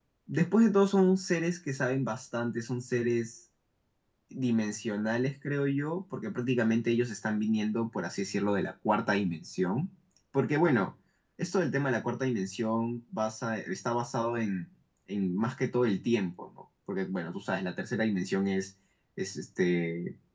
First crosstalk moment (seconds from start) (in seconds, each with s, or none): none